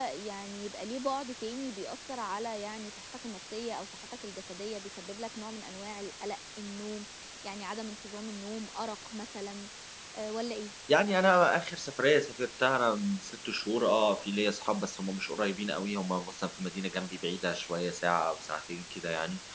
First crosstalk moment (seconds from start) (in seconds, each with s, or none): none